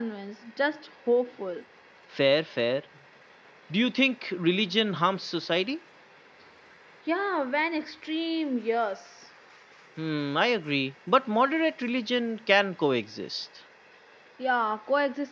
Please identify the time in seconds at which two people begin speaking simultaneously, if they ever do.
none

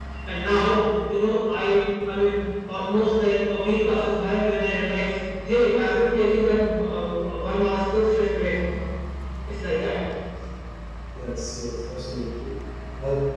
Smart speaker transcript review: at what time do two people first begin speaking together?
none

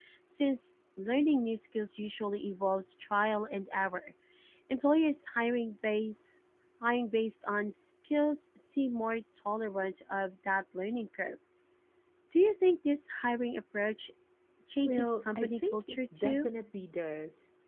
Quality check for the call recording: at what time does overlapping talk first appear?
14.8 s

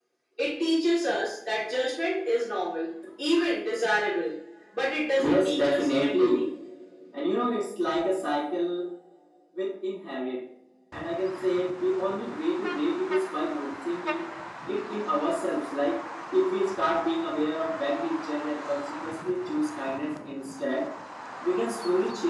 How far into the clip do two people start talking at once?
5.2 s

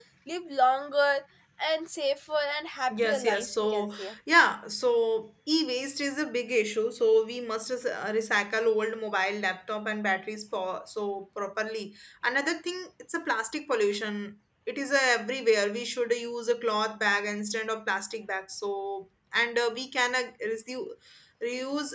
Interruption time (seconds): 2.9 s

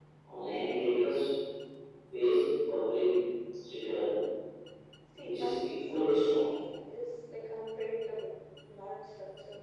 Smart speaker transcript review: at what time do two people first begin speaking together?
5.2 s

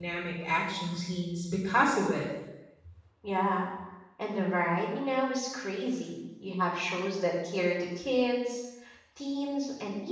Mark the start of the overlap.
none

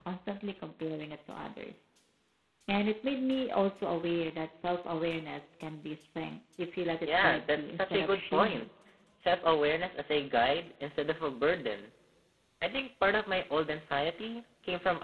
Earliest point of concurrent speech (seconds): 7.0 s

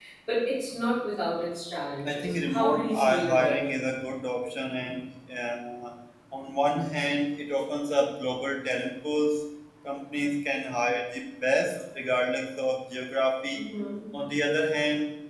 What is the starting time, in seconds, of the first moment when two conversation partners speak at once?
2.0 s

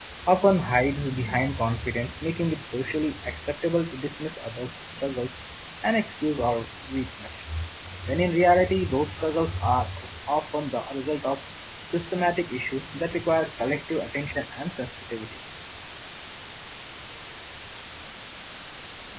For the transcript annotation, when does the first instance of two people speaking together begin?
none

